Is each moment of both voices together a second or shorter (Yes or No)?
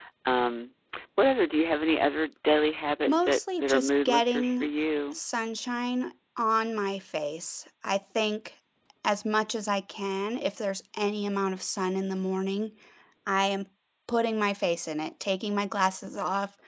No